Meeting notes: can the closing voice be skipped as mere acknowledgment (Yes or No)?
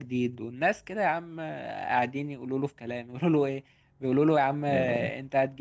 Yes